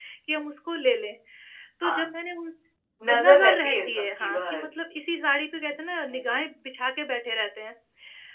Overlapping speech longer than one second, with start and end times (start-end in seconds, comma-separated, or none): 3.1-4.7